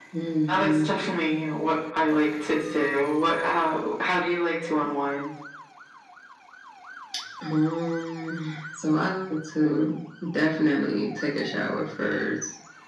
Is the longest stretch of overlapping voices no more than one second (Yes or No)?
Yes